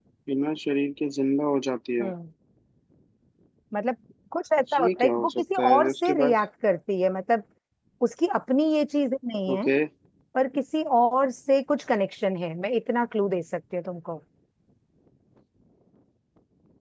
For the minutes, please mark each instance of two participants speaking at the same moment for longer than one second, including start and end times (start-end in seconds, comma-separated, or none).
4.8-6.3